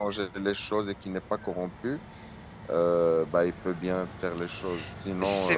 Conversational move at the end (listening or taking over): listening